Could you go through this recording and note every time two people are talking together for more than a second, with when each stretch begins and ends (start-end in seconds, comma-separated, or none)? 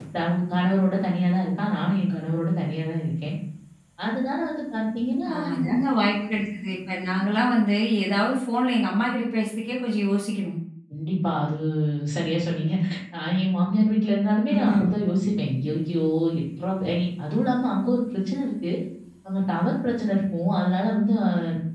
none